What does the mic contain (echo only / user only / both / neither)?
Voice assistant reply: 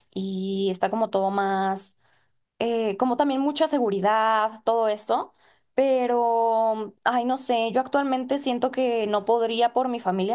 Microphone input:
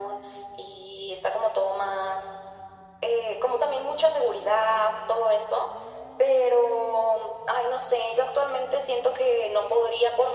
echo only